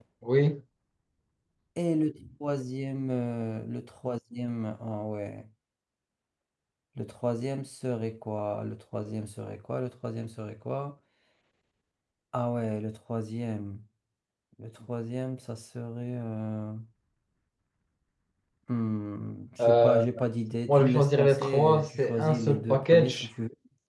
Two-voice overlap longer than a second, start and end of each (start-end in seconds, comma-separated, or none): 20.7-23.3